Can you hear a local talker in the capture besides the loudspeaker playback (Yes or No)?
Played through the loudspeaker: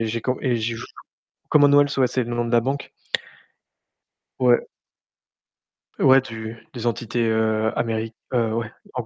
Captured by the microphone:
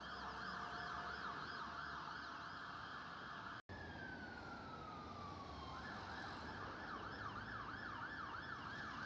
No